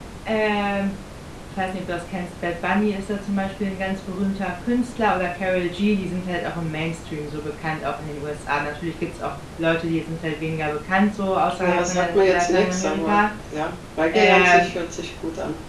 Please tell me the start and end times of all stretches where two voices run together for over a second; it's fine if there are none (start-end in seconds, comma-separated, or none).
11.6-13.2